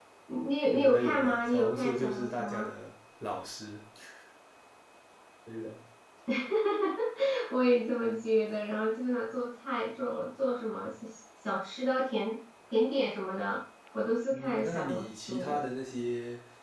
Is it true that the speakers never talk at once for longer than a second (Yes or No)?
No